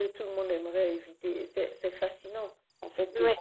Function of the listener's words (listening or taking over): listening